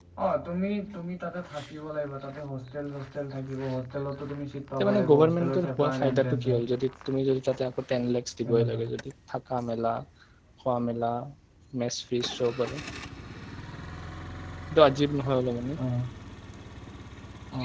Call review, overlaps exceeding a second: present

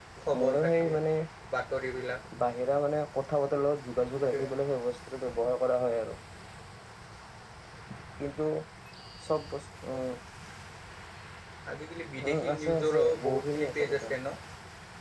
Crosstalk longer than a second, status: present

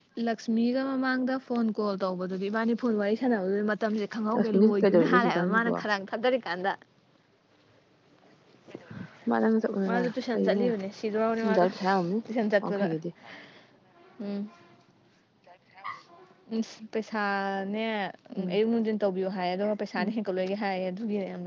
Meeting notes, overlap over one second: present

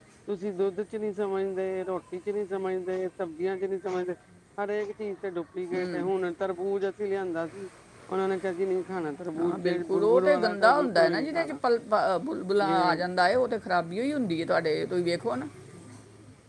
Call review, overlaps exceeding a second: present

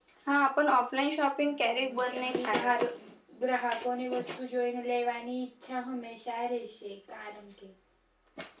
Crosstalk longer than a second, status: present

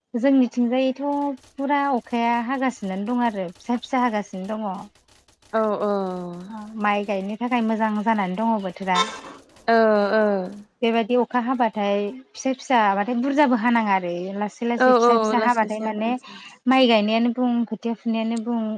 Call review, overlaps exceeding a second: present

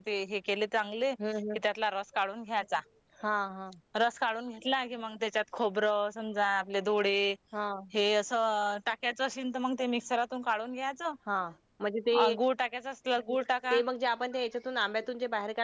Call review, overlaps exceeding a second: none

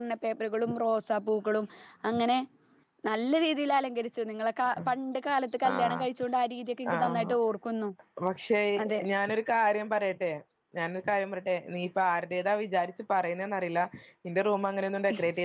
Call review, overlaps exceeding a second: none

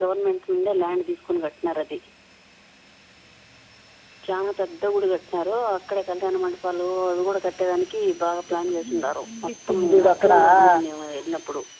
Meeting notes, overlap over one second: present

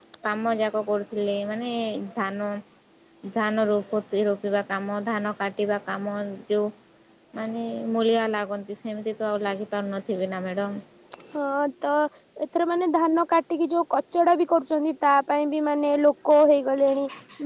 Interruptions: none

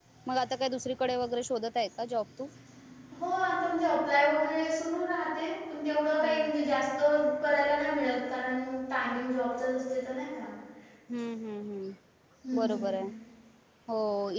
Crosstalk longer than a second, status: none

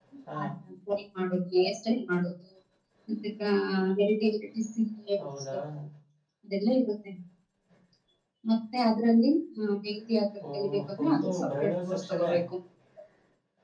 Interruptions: present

